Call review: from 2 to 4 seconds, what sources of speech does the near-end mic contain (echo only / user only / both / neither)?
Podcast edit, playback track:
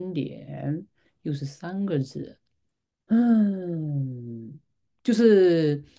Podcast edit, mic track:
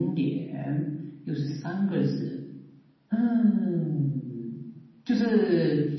echo only